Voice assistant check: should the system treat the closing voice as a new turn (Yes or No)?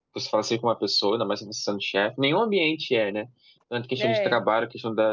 No